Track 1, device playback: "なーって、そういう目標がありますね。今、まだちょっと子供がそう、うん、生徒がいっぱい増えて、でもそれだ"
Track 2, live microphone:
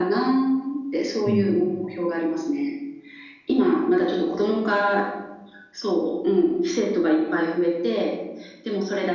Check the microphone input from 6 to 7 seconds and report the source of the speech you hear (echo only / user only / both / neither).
echo only